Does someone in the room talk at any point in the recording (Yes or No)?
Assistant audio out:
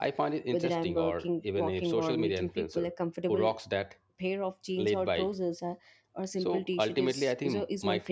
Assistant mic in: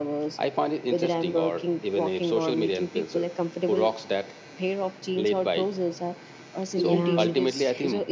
Yes